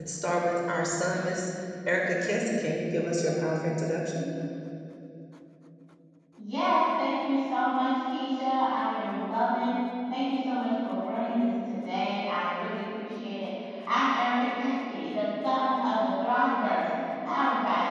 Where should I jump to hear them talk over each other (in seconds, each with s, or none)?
none